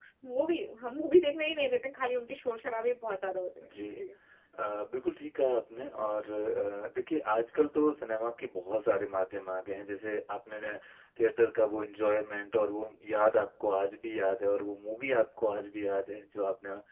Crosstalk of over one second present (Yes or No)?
No